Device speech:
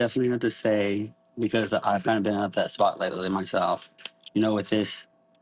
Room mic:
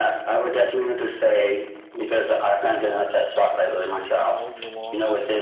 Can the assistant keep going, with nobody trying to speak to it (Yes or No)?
No